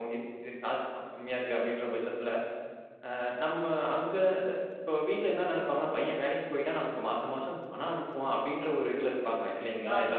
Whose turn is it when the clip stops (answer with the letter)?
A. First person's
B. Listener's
B